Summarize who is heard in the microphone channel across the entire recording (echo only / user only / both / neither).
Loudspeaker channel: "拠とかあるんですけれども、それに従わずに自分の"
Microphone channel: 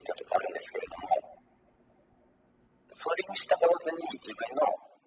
echo only